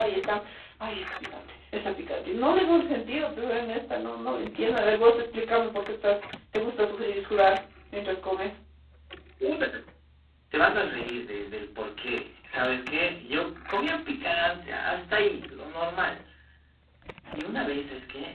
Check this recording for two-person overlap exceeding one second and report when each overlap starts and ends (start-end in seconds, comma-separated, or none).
none